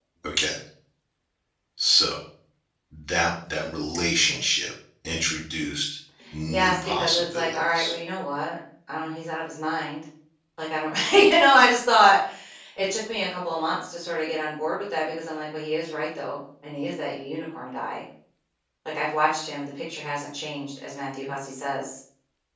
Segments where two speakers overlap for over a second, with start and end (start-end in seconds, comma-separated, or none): 6.5-7.9